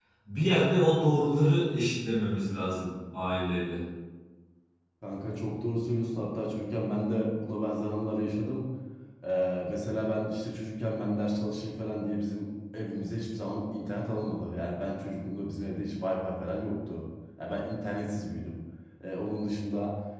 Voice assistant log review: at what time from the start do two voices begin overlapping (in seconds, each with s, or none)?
none